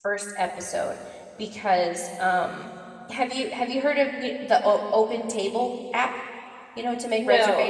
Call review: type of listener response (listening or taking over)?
taking over